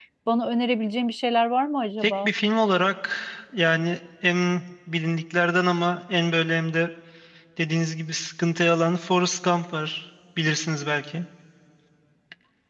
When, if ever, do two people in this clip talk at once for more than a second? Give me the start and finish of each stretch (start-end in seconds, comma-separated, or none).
none